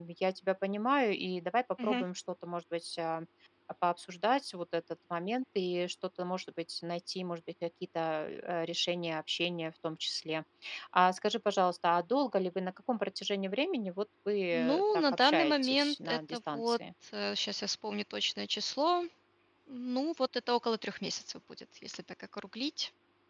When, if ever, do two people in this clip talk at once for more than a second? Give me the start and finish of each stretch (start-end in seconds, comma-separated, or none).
14.5-16.8